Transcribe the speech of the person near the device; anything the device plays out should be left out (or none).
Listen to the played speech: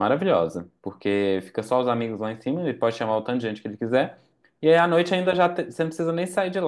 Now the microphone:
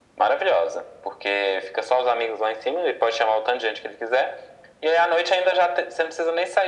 none